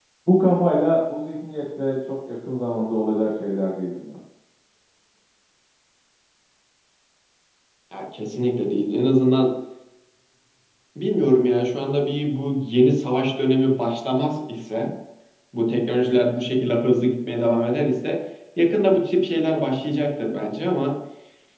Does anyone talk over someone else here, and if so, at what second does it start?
none

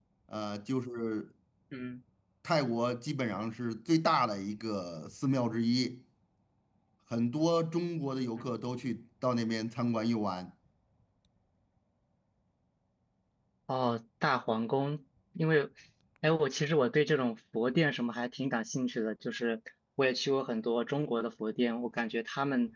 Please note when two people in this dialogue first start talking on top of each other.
none

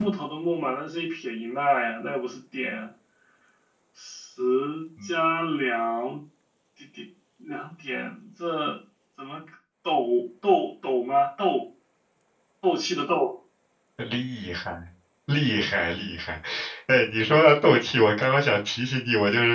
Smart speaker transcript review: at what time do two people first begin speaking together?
none

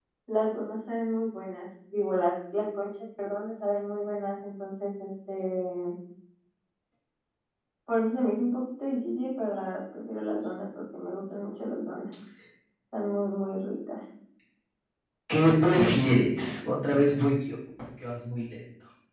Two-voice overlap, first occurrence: none

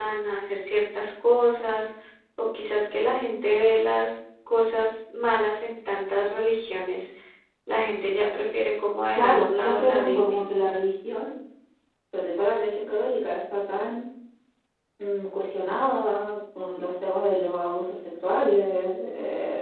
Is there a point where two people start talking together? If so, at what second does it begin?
9 s

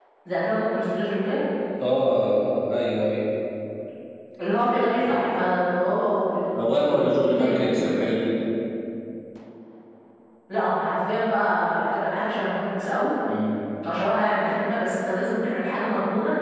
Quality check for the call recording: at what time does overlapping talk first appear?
7 s

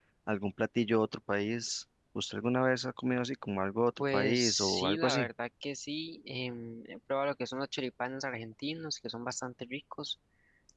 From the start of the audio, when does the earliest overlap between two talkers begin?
4 s

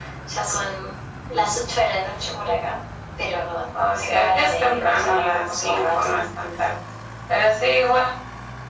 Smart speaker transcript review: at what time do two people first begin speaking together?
4 s

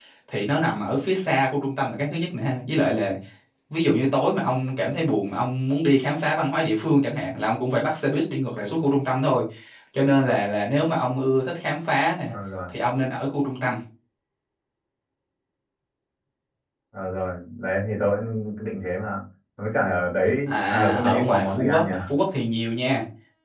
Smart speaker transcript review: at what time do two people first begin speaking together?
20 s

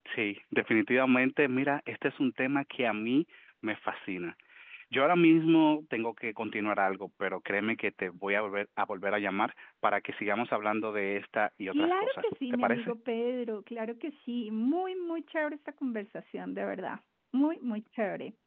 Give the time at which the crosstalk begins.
12 s

